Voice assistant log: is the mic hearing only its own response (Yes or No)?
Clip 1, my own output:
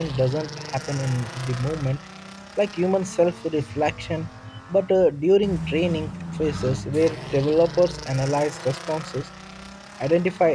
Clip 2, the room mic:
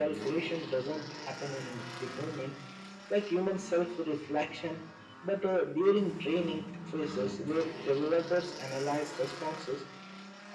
Yes